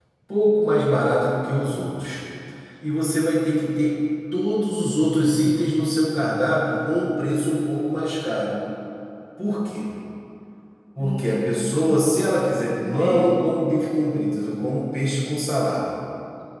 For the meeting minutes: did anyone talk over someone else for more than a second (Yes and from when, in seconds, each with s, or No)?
No